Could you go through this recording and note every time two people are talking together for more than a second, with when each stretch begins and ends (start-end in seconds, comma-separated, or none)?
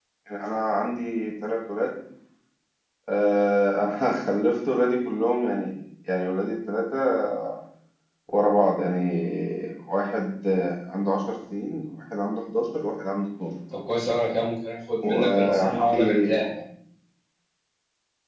15.0-16.4